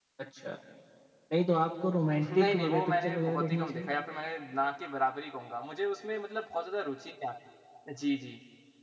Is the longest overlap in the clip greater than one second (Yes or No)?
Yes